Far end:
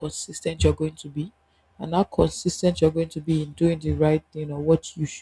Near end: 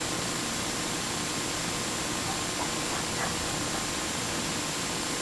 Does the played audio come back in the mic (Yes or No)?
No